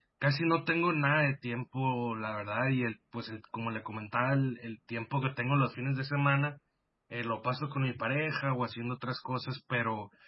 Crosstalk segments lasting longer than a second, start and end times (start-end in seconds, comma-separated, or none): none